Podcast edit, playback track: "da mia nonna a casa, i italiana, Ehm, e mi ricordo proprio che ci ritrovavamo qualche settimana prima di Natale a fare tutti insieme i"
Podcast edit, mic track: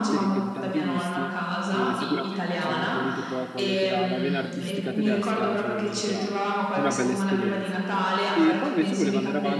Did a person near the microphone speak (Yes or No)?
Yes